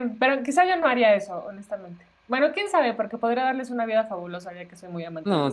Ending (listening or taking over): taking over